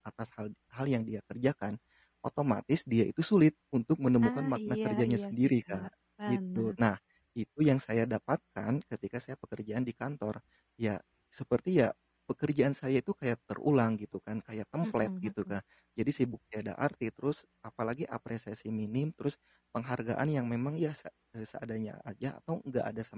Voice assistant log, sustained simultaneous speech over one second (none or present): present